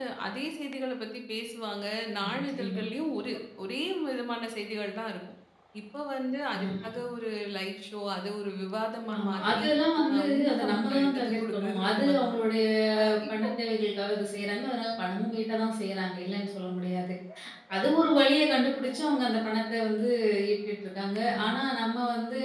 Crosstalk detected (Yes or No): Yes